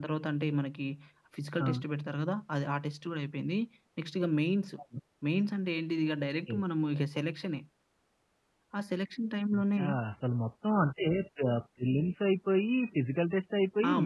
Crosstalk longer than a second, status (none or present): none